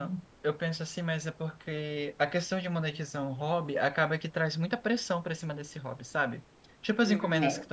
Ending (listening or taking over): listening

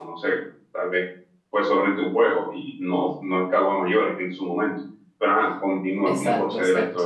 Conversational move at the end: taking over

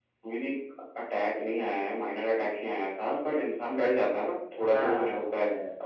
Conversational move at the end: listening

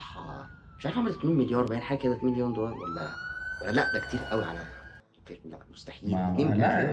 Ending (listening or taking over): taking over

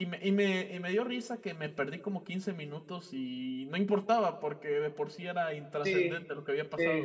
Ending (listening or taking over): taking over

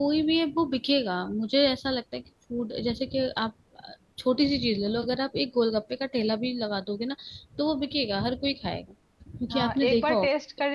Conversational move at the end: taking over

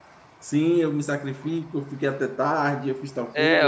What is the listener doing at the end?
taking over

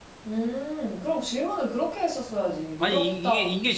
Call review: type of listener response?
taking over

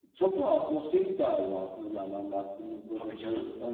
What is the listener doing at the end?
listening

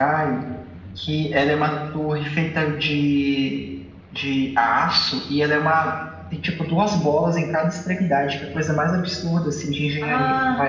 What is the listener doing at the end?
taking over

